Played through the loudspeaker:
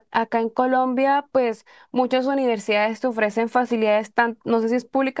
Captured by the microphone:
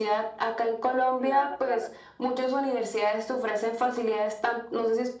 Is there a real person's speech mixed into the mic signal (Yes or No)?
Yes